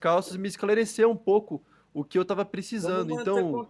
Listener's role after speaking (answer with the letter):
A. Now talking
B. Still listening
A